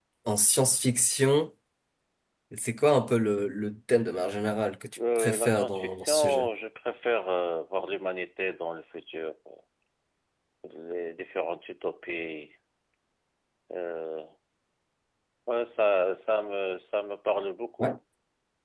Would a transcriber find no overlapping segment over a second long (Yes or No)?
No